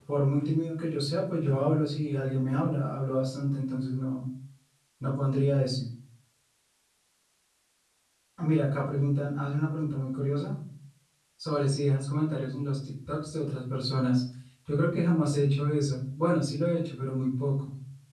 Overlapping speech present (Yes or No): No